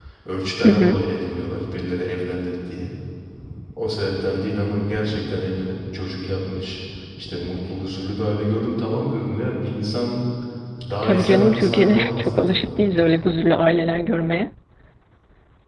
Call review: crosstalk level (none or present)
present